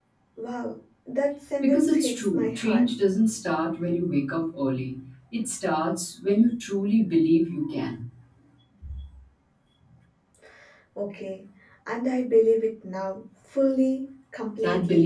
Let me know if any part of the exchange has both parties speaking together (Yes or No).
Yes